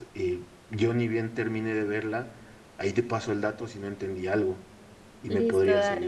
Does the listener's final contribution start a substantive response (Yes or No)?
Yes